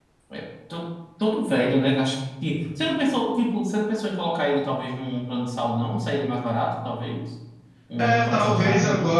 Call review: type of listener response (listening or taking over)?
taking over